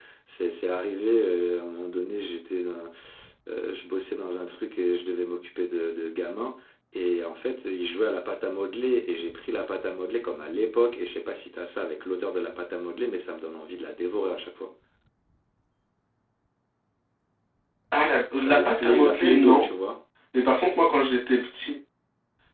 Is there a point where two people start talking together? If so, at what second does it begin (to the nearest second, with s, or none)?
18 s